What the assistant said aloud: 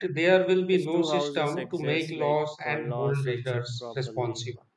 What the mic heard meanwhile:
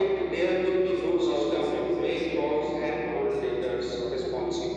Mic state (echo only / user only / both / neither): echo only